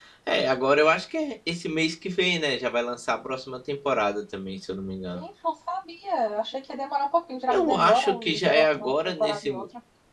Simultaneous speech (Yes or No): Yes